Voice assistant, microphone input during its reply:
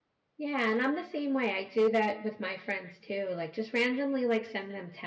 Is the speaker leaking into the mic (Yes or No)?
No